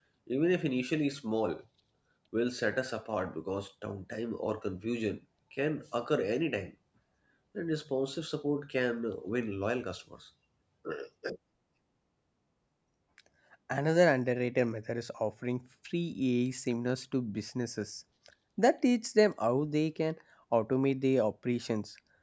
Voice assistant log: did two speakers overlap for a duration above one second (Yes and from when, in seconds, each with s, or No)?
No